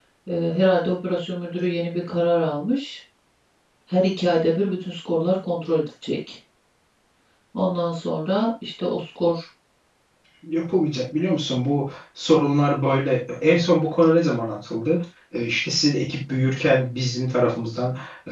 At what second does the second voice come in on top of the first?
none

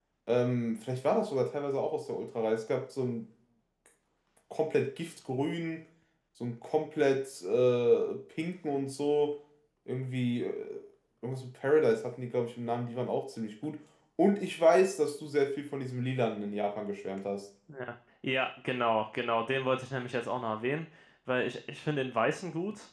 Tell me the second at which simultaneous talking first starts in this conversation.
none

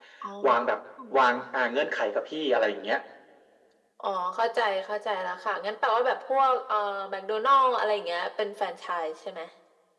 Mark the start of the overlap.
none

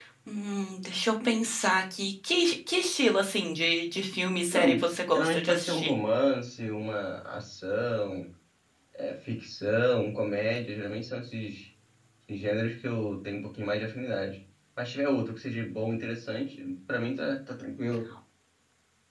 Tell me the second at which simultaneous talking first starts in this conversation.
5 s

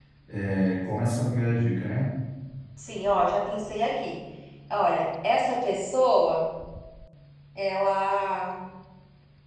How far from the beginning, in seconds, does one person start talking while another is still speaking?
none

